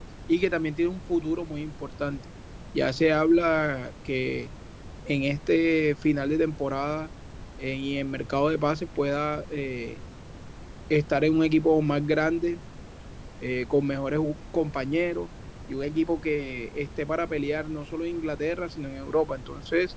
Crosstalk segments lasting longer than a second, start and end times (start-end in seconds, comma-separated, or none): none